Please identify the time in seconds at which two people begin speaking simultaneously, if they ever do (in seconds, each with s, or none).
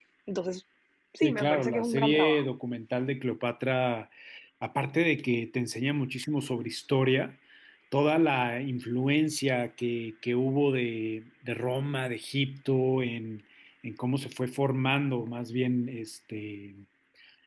1.2 s